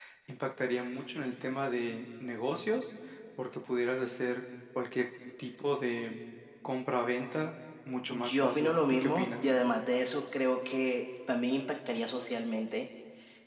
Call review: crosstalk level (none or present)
present